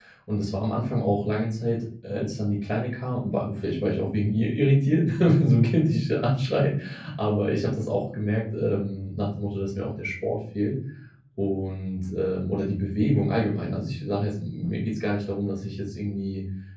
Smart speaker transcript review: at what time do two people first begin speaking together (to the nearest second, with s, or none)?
none